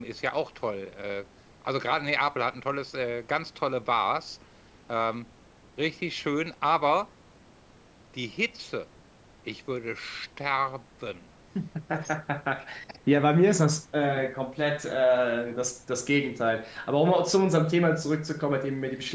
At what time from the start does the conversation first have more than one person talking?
none

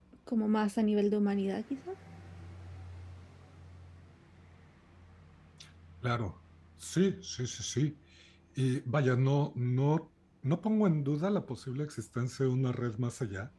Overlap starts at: none

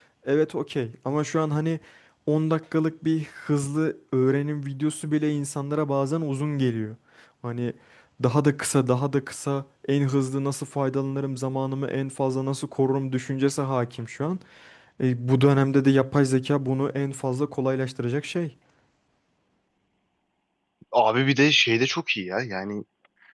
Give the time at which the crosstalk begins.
none

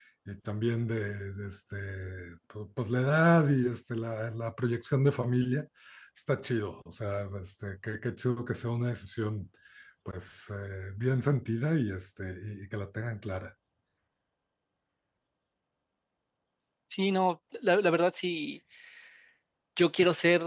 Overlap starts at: none

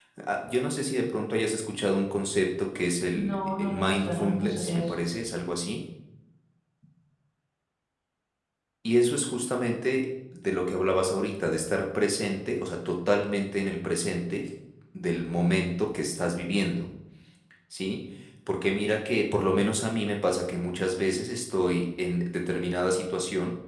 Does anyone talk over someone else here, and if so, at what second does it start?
3.1 s

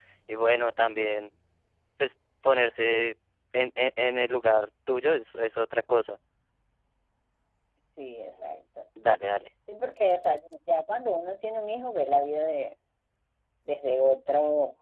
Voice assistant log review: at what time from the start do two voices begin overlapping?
none

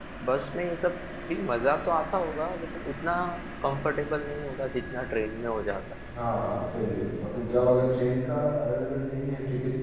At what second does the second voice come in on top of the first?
none

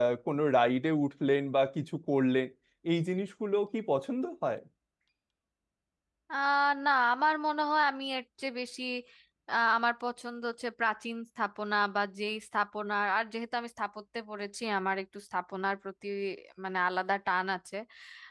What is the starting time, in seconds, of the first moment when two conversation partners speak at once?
none

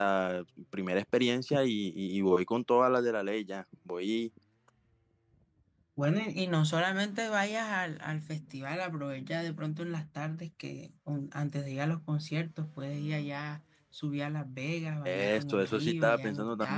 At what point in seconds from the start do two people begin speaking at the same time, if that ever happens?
15.0 s

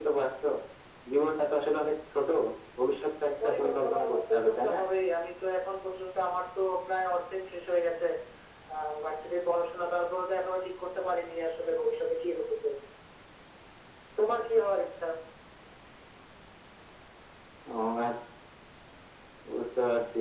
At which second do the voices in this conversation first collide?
3.4 s

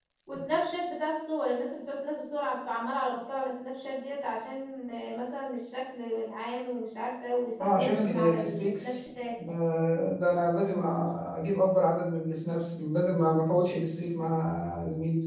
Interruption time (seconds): 7.6 s

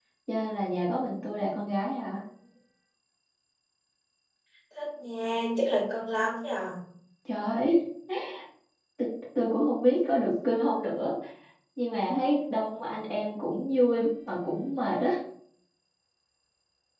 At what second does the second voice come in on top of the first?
none

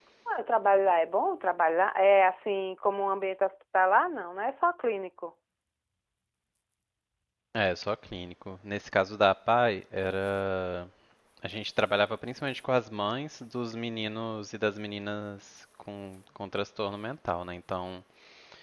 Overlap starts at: none

